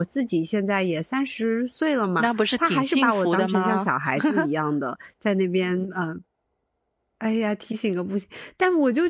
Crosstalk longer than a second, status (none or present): present